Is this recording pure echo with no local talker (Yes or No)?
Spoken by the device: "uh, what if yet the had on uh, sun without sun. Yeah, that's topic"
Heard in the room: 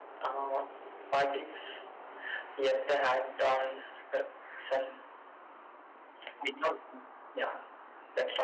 Yes